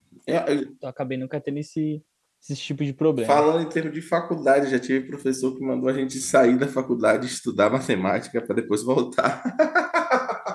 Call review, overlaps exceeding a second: none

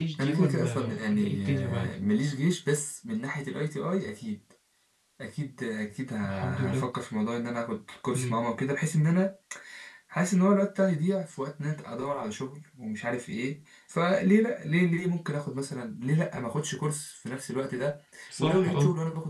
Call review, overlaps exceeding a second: present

